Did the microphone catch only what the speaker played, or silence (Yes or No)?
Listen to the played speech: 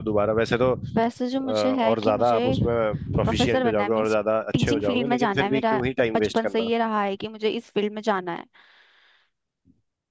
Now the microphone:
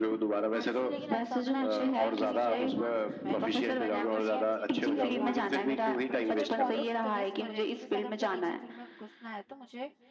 No